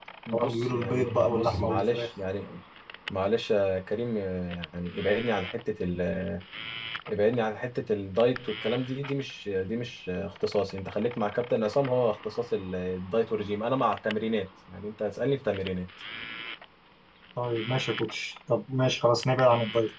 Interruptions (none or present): present